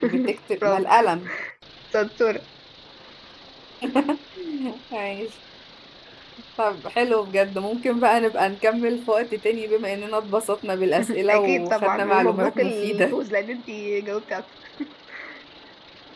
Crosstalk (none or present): present